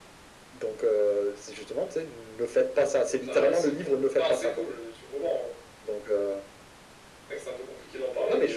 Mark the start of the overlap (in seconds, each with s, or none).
3.2 s